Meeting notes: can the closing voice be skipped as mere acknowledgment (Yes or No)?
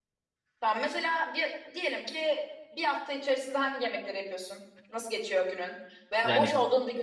Yes